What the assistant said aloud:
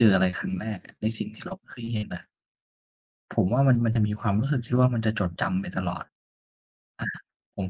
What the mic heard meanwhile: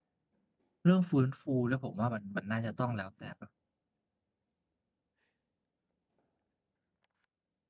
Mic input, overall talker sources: user only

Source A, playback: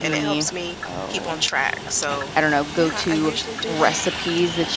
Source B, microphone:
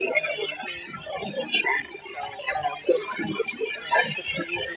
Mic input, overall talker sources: echo only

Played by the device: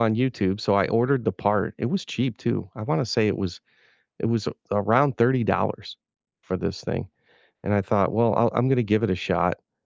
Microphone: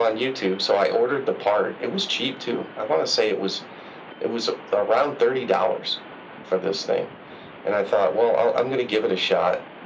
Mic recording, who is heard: echo only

